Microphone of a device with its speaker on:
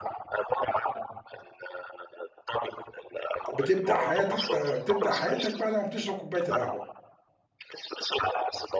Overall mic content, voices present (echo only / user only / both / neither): both